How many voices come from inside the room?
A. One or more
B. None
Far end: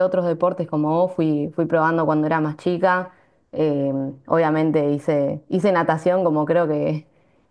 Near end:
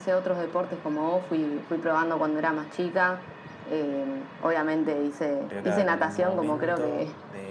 A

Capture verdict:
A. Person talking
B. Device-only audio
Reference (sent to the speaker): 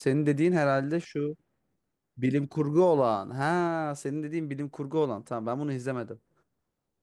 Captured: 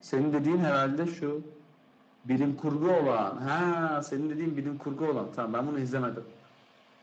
B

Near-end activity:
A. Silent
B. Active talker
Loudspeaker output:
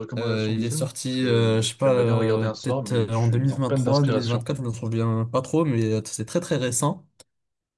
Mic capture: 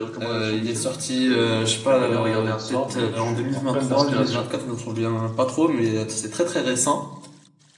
A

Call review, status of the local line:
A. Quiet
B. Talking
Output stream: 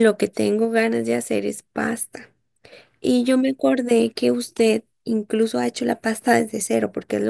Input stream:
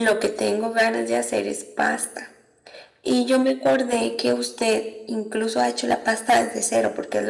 A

